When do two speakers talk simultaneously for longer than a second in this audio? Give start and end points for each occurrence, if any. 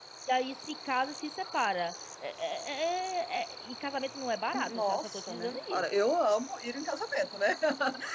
4.5-5.8

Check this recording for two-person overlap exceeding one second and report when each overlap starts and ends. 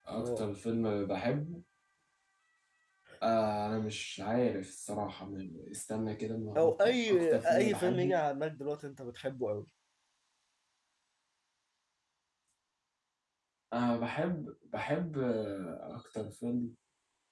6.6-8.2

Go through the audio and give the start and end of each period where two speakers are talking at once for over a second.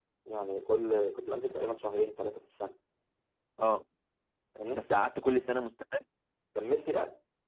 none

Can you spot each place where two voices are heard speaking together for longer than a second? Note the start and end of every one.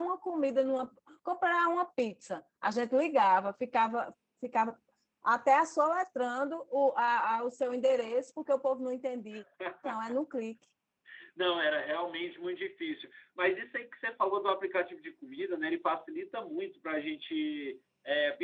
none

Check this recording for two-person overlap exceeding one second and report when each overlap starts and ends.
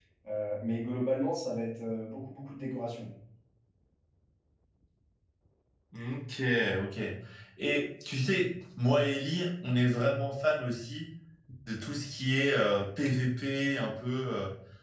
none

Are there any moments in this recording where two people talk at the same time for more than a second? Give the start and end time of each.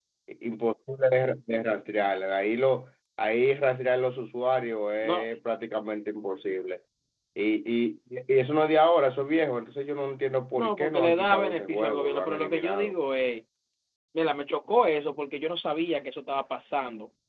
10.6-12.9

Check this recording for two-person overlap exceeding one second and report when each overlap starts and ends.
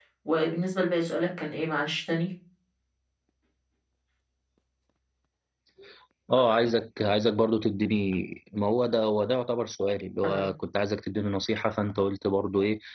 none

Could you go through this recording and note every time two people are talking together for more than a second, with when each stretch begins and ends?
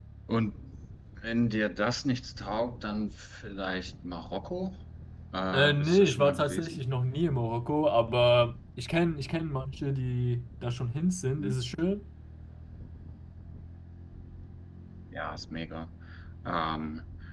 5.5-6.8

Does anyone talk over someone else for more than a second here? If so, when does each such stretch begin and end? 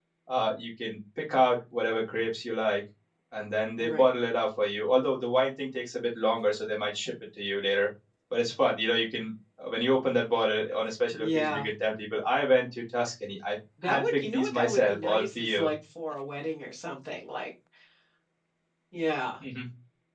13.8-15.7

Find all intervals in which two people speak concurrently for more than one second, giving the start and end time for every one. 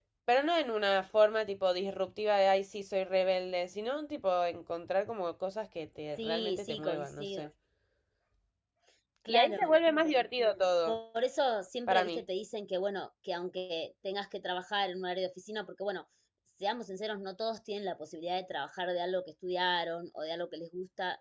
6.2-7.5

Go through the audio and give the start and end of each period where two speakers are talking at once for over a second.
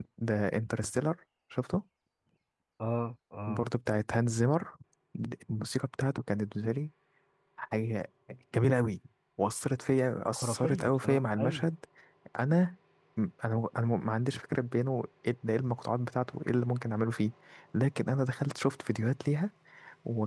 10.3-11.7

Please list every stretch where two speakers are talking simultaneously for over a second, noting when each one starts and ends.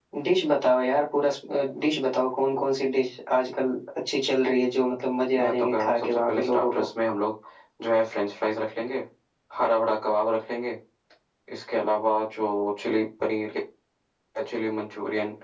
5.4-6.8

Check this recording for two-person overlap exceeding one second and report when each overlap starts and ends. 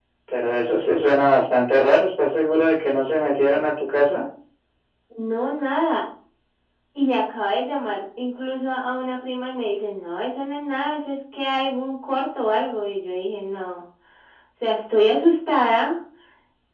none

